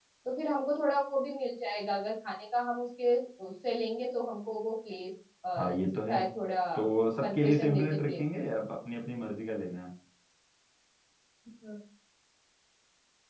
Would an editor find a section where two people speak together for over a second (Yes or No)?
Yes